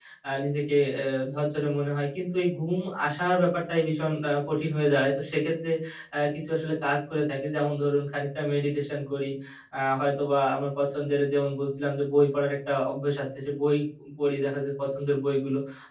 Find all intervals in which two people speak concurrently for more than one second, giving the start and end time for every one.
none

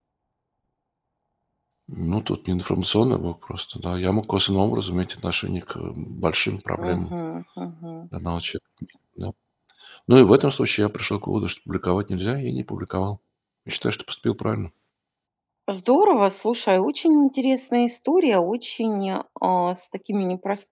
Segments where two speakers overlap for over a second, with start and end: none

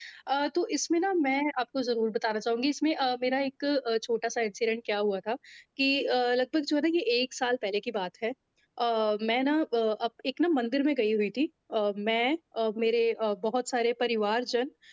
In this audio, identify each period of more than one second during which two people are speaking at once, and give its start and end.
none

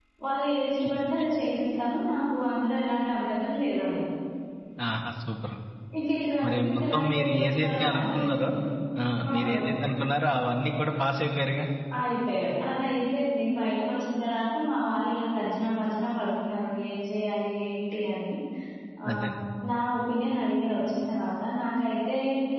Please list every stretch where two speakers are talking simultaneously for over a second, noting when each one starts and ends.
6.4-8.3

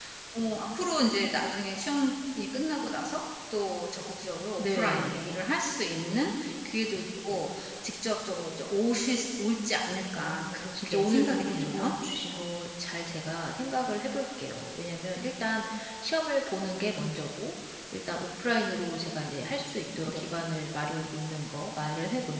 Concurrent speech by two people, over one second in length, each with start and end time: 10.2-11.9

